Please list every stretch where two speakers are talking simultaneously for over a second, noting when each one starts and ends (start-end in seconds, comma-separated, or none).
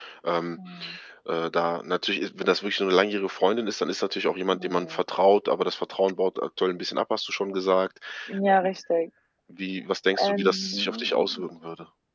10.2-11.4